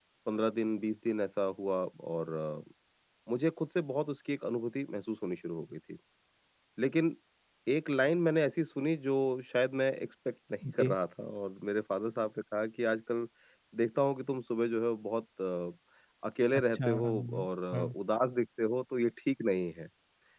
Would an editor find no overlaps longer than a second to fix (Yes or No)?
No